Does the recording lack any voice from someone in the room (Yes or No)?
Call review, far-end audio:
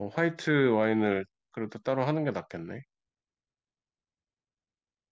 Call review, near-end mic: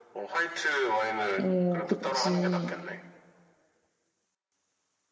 No